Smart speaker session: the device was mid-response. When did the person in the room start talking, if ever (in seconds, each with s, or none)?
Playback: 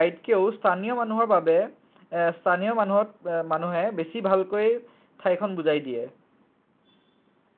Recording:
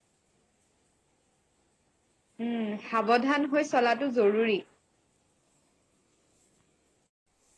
2.5 s